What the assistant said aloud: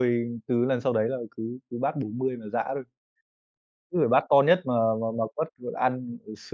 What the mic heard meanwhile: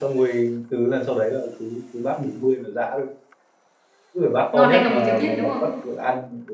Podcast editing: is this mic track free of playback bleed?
No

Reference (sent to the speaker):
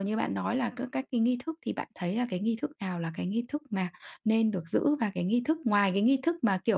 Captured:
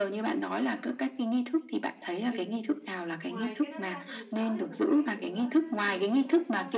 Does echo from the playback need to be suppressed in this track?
Yes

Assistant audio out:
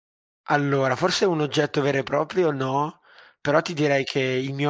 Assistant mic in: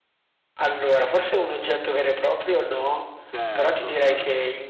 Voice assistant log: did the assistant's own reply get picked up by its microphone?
Yes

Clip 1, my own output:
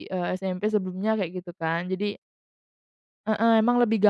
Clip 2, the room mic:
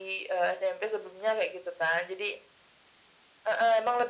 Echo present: Yes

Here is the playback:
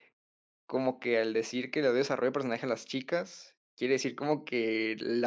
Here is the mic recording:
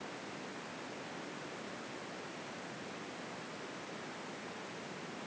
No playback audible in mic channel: Yes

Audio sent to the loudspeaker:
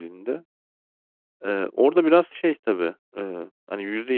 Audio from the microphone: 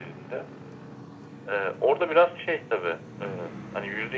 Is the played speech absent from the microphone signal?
No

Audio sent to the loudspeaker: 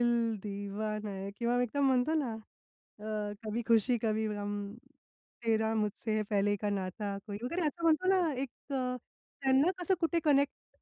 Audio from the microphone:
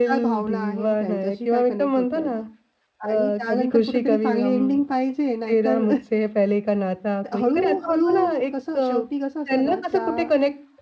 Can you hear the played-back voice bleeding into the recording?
Yes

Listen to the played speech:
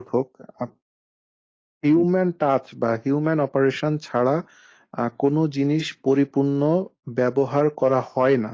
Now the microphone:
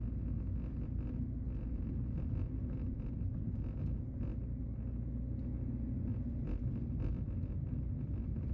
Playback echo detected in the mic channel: No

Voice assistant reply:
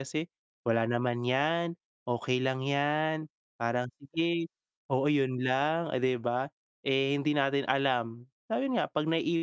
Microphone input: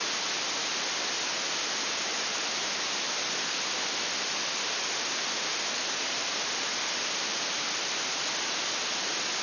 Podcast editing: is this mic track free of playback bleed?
Yes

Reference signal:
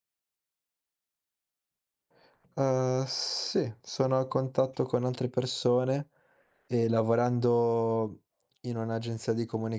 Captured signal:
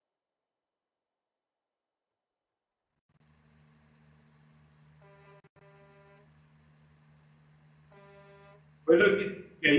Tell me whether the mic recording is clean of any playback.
Yes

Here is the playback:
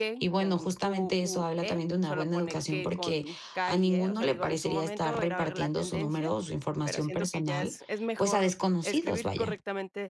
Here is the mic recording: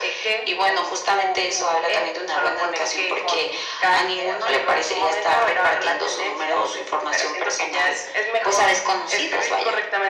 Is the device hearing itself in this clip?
Yes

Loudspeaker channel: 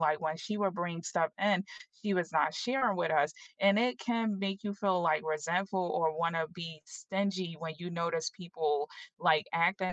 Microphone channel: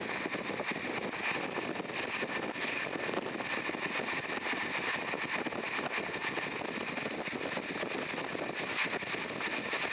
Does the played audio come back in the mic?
No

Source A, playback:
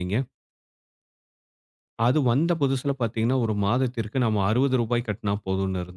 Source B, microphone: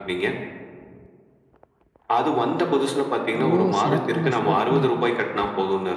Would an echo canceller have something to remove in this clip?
Yes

